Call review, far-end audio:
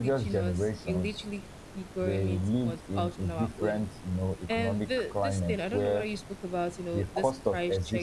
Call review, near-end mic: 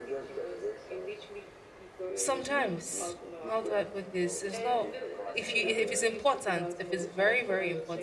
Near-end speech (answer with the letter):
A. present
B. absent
A